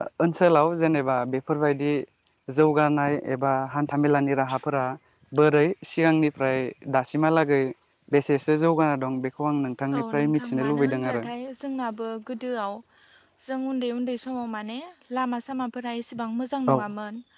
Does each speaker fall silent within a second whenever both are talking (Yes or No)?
No